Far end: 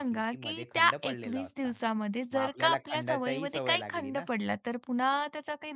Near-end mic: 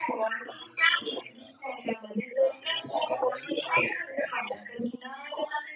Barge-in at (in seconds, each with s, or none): none